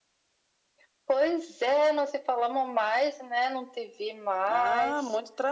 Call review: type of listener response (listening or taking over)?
taking over